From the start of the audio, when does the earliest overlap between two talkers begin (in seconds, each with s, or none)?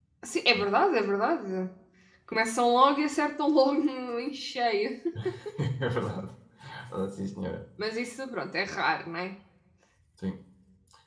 none